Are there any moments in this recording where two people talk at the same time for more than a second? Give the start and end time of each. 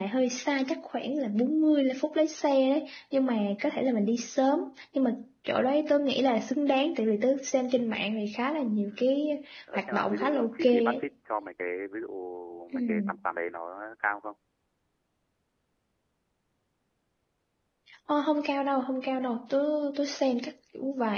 9.7-11.0

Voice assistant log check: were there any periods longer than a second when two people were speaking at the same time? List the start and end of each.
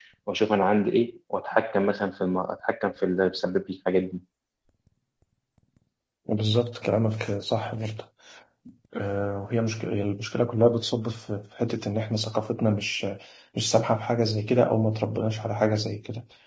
none

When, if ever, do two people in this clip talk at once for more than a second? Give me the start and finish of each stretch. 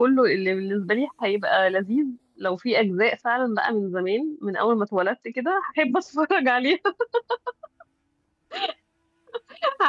none

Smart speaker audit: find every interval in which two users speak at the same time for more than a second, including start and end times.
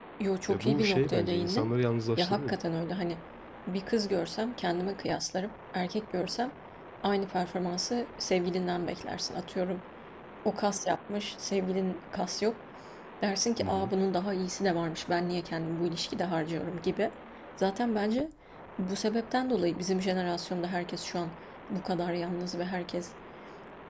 0.5-1.7

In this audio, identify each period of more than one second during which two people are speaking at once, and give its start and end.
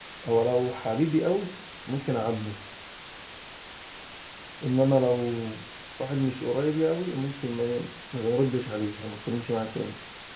none

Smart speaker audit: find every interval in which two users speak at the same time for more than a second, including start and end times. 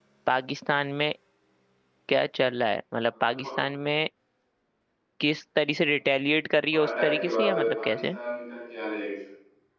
6.7-8.0

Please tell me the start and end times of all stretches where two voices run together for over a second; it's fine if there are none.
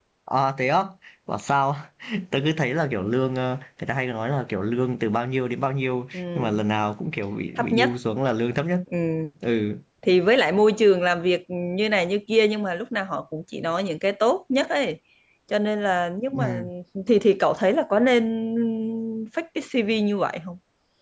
none

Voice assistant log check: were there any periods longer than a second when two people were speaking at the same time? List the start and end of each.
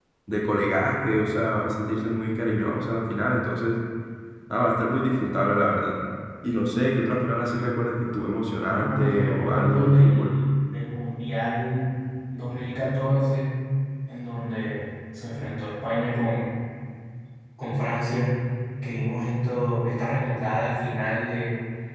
8.7-10.3

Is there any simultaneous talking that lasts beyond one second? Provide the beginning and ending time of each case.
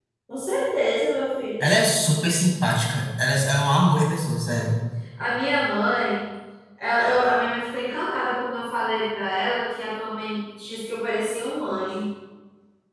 none

